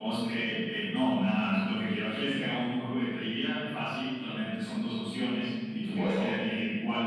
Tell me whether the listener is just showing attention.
Yes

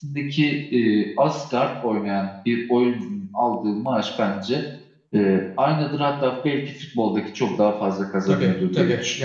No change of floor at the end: No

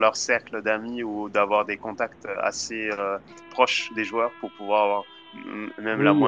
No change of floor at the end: No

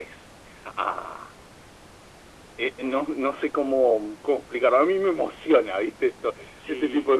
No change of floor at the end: No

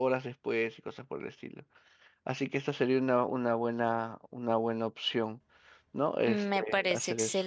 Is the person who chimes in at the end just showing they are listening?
No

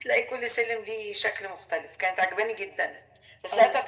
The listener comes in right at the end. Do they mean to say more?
No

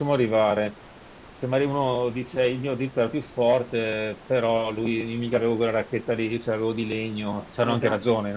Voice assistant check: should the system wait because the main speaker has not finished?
No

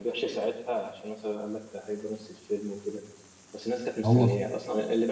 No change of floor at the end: Yes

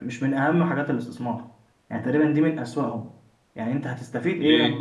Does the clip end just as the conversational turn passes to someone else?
No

